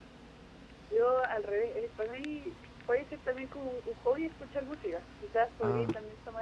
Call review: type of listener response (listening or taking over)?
listening